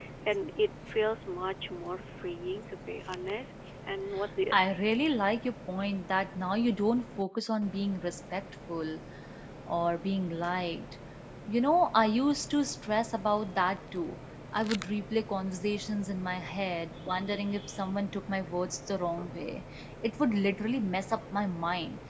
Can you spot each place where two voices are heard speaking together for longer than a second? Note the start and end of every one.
none

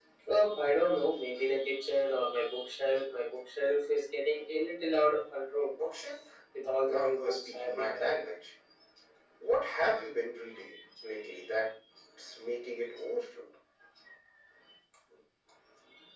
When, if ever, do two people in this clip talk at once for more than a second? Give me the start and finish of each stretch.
6.8-8.2

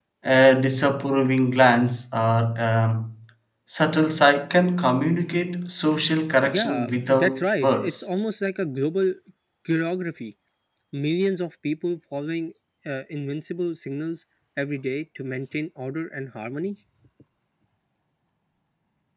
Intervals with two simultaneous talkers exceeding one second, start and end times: 6.4-8.1

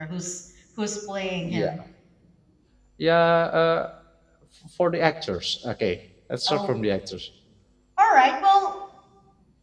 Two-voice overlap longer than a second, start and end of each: none

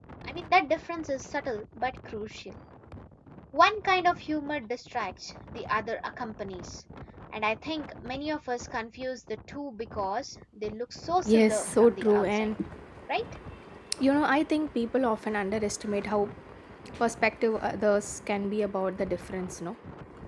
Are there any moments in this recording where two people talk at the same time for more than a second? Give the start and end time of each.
11.2-12.5

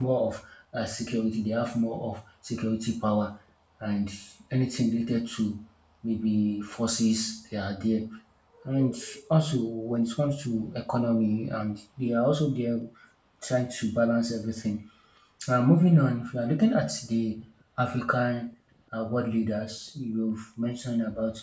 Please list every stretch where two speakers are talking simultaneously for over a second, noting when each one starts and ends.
none

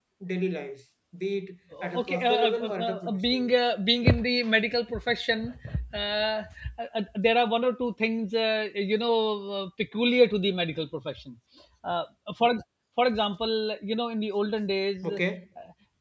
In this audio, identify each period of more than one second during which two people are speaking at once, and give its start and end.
2.0-3.5

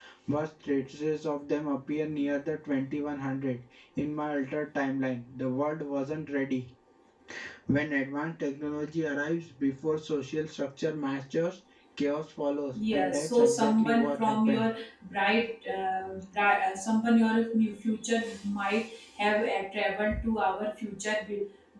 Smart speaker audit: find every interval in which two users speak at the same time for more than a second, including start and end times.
12.9-14.7

